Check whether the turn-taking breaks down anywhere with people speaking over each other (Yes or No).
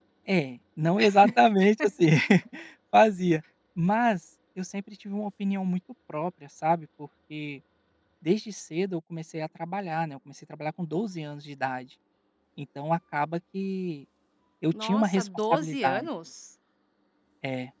Yes